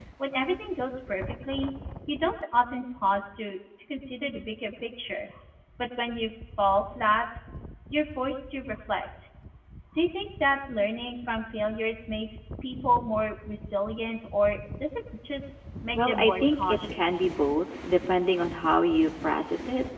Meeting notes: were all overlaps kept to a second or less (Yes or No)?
No